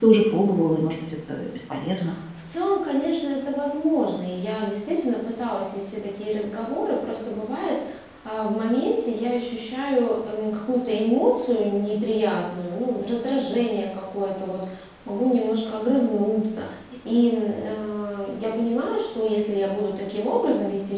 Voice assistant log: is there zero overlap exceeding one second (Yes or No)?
Yes